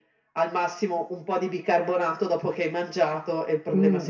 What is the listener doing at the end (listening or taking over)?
taking over